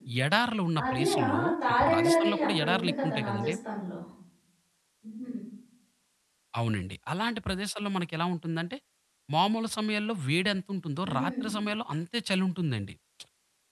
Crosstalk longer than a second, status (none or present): present